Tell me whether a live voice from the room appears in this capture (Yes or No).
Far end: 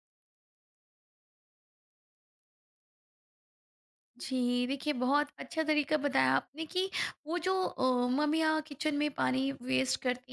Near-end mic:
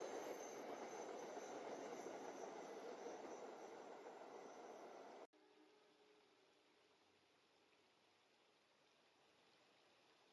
No